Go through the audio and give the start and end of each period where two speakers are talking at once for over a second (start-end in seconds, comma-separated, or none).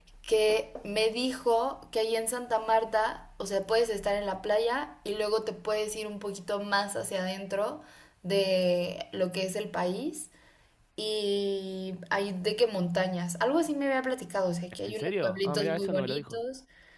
14.9-16.4